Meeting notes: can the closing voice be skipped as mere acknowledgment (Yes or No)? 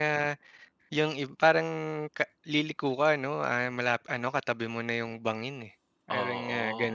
No